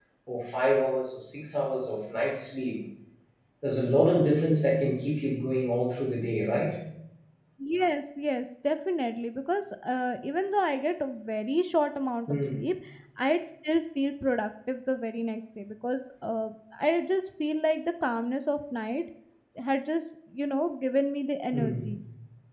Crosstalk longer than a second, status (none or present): none